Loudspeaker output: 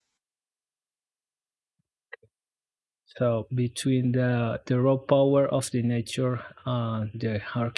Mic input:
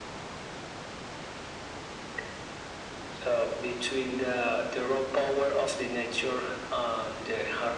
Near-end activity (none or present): none